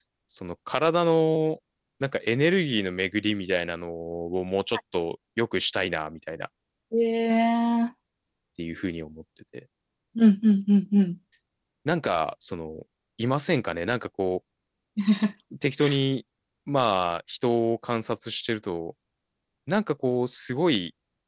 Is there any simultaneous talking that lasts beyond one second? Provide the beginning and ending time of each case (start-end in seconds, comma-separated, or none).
none